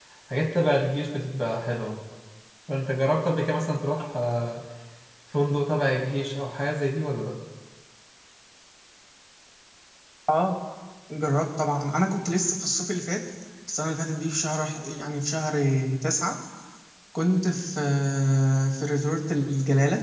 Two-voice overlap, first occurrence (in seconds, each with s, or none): none